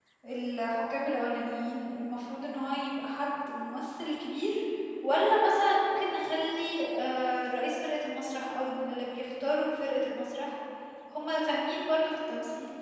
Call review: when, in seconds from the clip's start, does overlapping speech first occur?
none

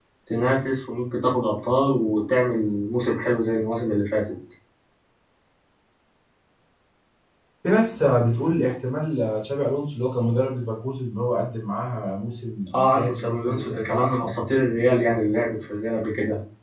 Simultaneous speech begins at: 13 s

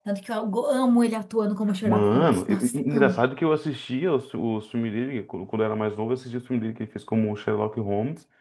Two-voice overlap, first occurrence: 2 s

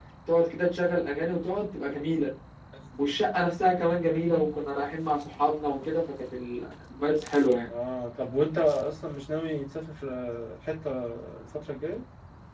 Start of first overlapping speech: none

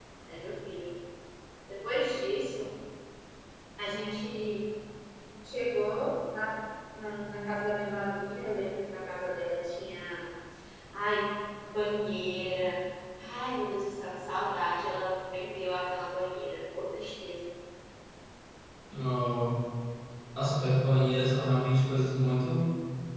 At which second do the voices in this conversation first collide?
none

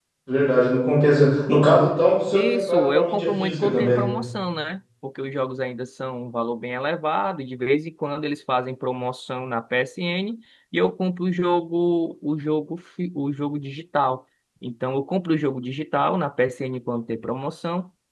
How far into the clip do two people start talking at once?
2 s

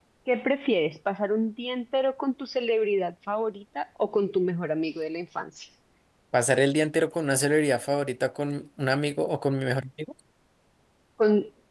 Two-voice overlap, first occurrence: none

